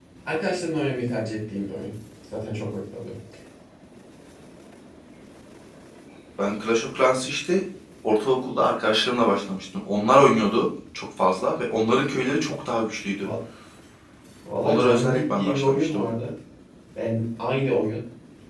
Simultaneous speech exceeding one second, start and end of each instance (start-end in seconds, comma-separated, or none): 14.6-16.0